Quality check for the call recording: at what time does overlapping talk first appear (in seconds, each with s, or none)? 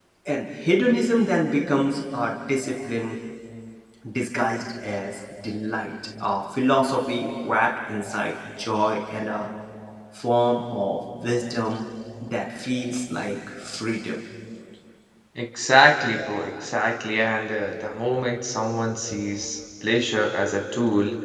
none